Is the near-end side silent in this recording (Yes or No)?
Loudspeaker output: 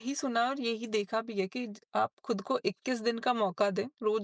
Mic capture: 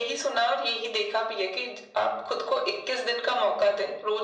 Yes